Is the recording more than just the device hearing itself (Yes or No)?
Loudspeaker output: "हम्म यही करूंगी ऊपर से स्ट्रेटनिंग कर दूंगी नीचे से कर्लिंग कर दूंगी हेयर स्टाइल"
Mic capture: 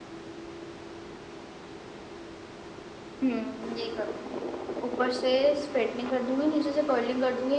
No